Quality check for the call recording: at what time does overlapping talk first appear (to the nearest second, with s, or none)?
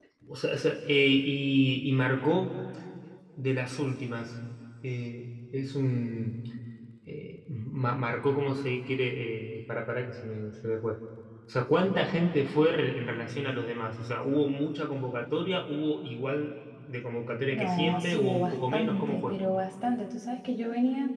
18 s